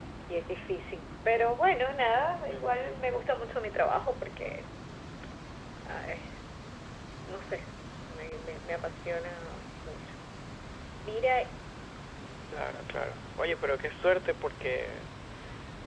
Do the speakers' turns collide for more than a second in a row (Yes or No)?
No